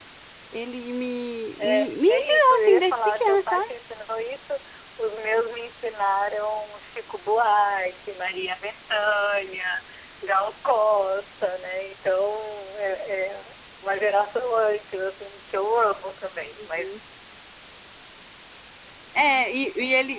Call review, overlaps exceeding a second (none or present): present